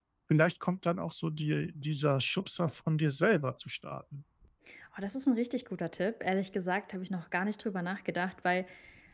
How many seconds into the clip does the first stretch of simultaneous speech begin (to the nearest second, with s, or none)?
none